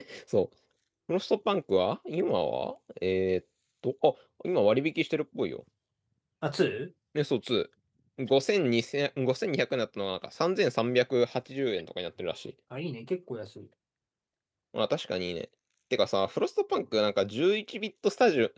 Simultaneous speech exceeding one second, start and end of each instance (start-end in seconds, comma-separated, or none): none